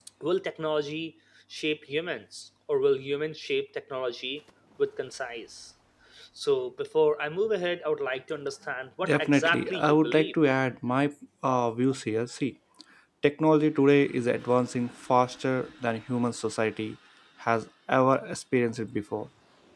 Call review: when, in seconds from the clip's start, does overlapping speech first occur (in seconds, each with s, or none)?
9.0 s